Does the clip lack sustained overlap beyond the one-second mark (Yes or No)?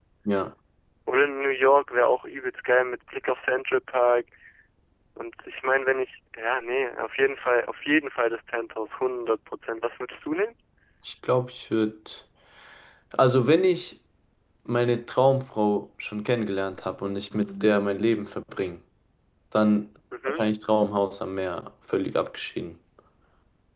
Yes